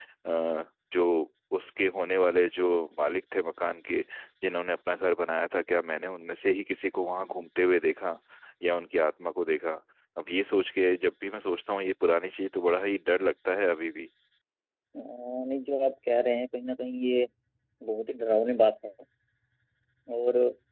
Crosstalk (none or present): none